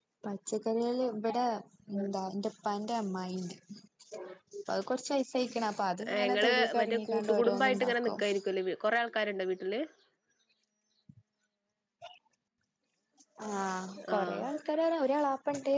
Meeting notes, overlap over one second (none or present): present